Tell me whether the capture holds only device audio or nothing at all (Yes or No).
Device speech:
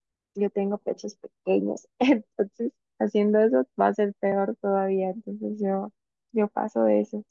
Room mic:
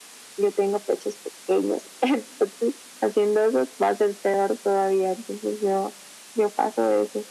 Yes